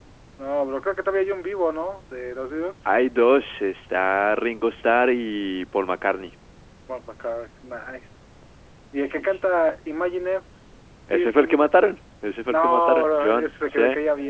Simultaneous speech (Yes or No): Yes